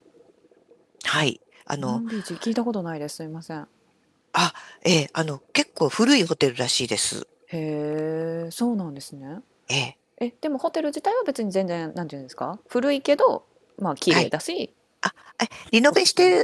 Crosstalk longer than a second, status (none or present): none